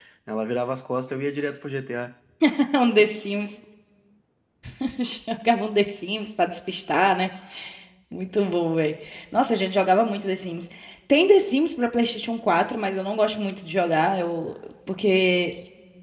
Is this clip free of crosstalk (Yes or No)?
Yes